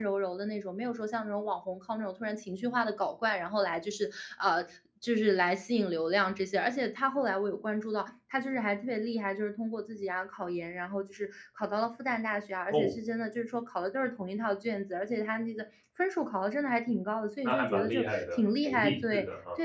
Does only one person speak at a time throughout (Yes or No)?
No